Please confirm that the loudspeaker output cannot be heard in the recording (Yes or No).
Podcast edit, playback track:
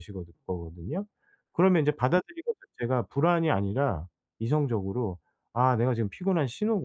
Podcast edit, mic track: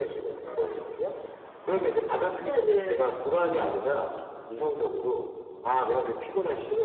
No